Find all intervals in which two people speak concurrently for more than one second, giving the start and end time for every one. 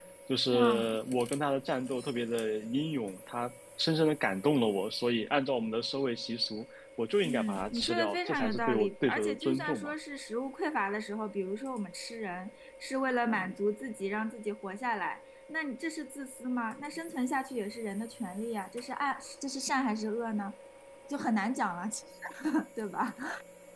7.2-9.9

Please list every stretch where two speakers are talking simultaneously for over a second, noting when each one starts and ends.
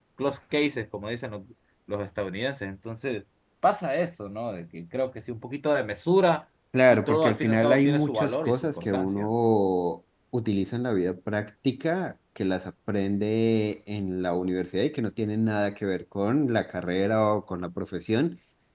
6.9-9.3

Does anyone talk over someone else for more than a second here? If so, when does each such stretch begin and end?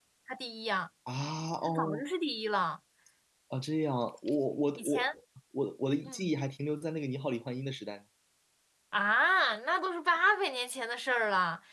none

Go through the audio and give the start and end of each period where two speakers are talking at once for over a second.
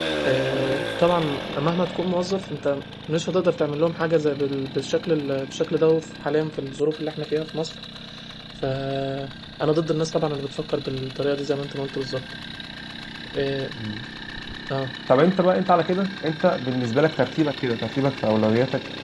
none

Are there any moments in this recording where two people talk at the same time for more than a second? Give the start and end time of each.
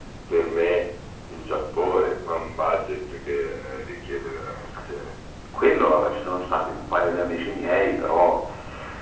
none

